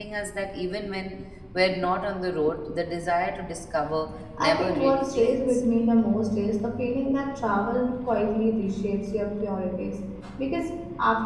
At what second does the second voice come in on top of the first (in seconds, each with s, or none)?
4.2 s